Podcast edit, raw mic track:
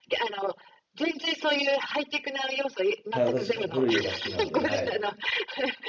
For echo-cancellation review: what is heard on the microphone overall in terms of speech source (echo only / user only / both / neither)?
both